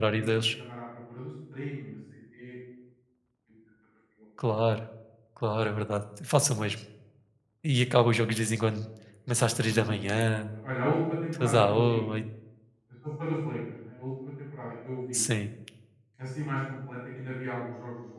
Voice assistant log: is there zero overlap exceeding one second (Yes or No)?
No